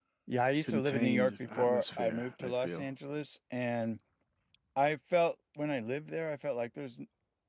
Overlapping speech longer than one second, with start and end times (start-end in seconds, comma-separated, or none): 0.6-2.9